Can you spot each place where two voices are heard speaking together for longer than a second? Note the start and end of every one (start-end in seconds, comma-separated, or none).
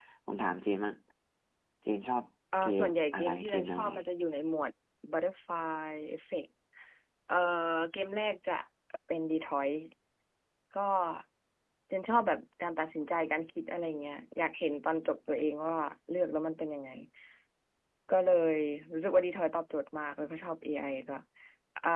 2.6-3.9